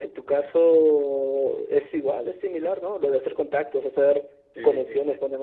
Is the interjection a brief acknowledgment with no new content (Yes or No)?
Yes